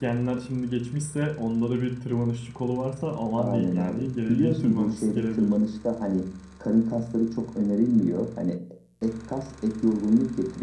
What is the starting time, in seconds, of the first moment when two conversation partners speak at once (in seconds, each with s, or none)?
3.4 s